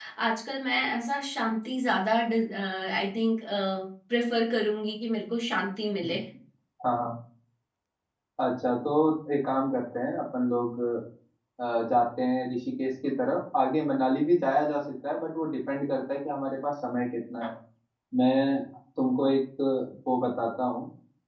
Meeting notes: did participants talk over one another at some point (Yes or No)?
No